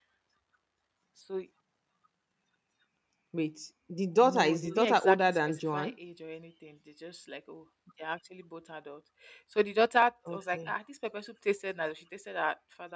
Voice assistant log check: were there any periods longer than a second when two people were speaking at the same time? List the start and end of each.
4.2-5.9

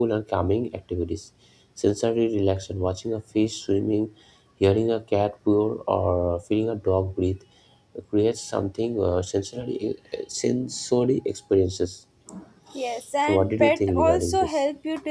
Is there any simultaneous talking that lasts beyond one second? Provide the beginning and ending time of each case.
13.3-14.6

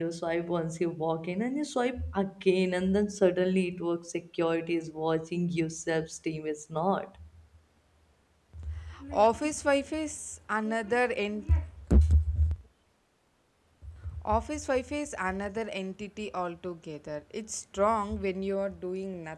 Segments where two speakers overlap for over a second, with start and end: none

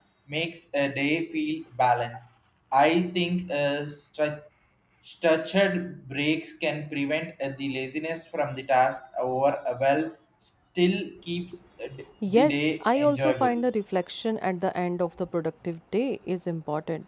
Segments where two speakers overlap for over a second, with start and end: 12.3-13.5

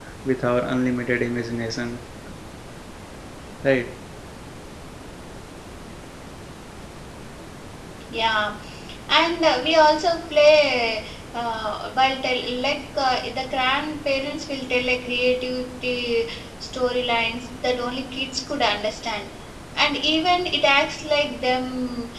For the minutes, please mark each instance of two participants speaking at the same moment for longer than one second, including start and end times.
none

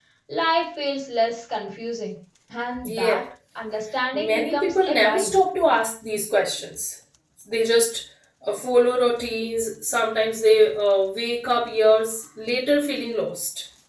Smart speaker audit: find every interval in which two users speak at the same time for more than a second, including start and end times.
4.1-5.4

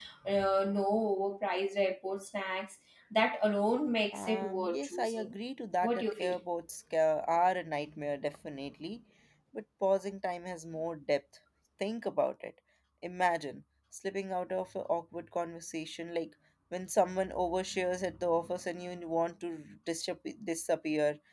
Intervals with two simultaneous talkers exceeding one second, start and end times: 4.1-5.3

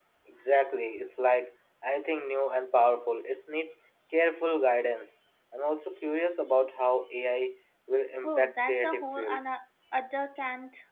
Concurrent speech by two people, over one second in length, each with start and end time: 8.2-9.5

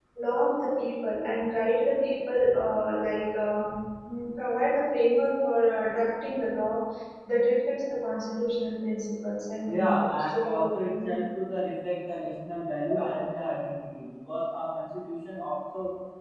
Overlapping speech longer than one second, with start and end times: 9.6-11.1

